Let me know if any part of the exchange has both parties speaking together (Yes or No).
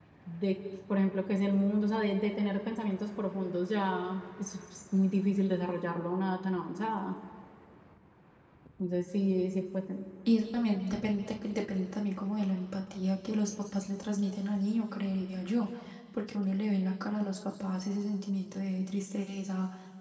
No